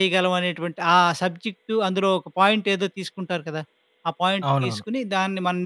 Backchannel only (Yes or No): Yes